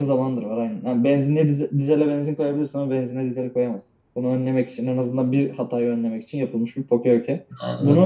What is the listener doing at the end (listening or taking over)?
taking over